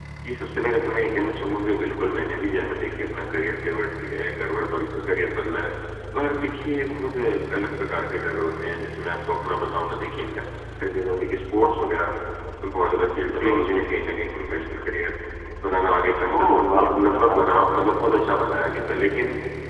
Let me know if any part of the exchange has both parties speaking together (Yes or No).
Yes